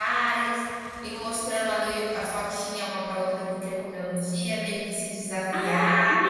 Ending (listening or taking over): taking over